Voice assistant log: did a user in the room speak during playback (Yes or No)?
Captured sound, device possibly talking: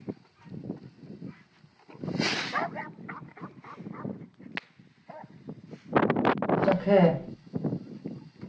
Yes